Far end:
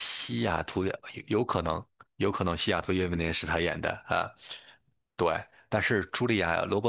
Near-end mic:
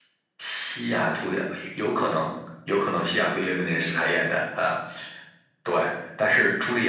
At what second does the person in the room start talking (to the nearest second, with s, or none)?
none